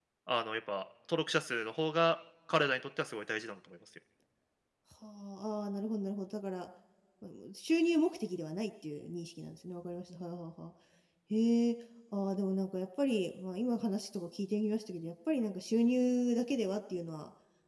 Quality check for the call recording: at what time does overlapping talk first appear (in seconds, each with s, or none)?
none